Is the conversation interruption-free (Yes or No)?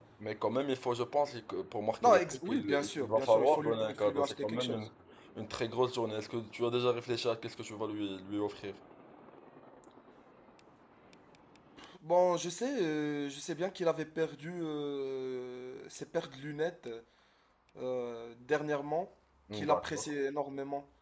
No